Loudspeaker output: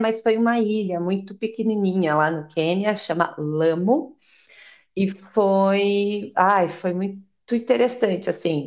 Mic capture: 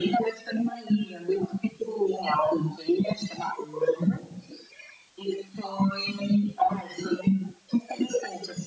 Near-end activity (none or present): none